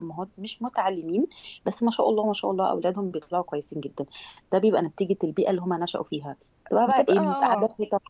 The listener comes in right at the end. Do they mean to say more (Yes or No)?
No